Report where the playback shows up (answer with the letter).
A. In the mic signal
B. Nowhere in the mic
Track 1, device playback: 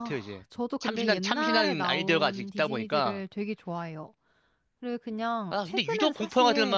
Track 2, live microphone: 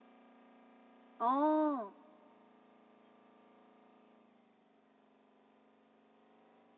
B